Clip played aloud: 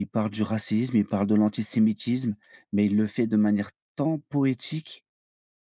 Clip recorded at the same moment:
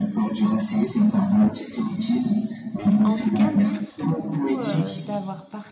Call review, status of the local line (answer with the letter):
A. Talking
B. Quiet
A